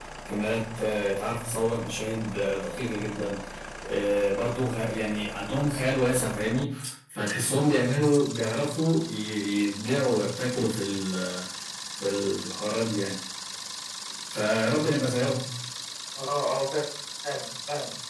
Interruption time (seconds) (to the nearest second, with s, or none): none